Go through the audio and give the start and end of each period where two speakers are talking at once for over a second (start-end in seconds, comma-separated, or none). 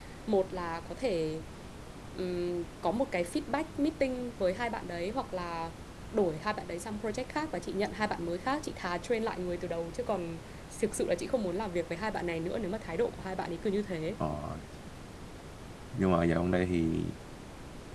none